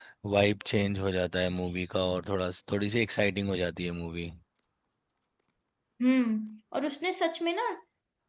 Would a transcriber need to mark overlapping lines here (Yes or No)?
No